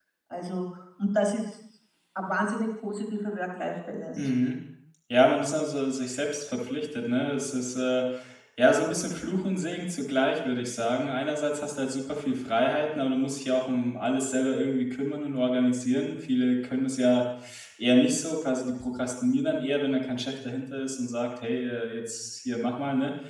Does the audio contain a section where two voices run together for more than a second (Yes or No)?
No